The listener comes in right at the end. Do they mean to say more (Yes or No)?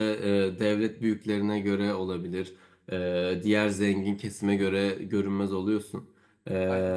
No